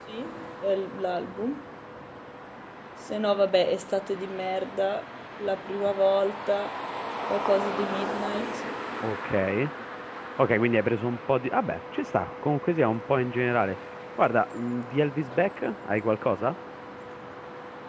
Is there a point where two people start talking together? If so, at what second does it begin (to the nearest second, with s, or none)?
none